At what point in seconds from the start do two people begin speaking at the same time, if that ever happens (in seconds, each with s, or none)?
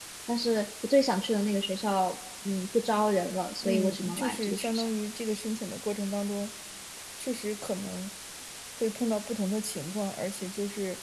3.6 s